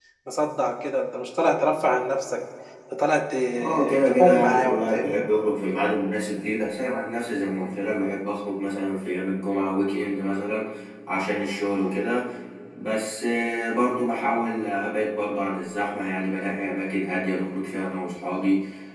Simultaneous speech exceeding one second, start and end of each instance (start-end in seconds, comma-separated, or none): 3.6-5.2